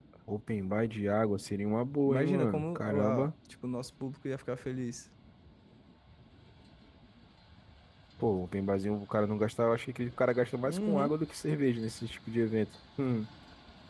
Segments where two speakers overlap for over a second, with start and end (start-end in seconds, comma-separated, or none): 2.1-3.3